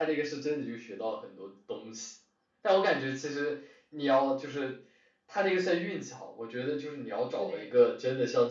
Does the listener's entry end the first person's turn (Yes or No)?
No